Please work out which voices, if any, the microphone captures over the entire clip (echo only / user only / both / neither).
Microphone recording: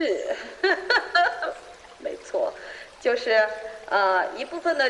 echo only